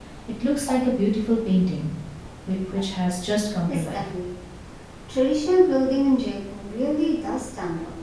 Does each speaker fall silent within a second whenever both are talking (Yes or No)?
Yes